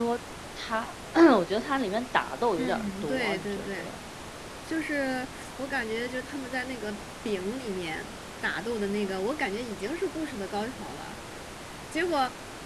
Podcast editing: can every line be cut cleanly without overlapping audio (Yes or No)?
No